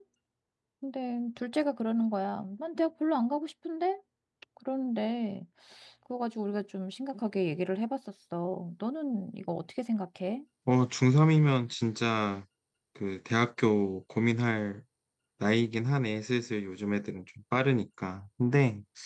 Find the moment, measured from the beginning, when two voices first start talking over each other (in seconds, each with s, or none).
none